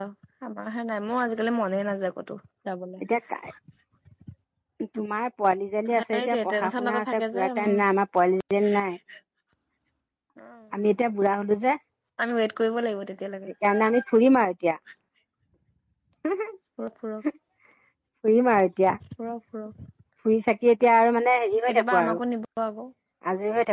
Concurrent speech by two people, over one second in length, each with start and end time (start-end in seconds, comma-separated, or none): 6.1-7.8